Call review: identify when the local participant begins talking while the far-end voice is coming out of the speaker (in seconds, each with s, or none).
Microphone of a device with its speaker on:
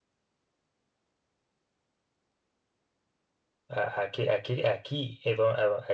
3.7 s